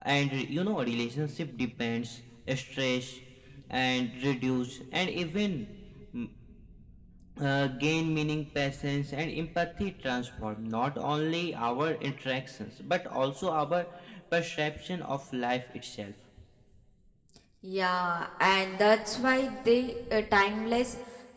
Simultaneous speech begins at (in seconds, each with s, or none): none